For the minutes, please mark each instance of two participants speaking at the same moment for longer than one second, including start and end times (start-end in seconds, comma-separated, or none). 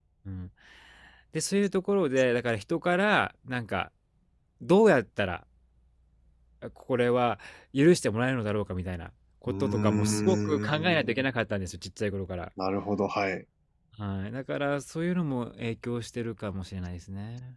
9.5-10.8